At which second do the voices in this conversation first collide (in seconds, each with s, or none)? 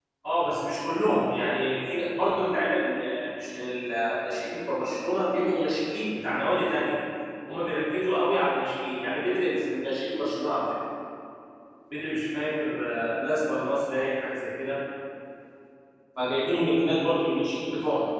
none